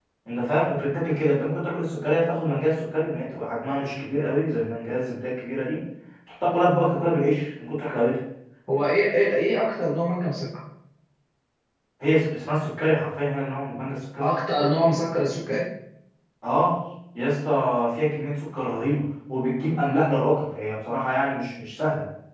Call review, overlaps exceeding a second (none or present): none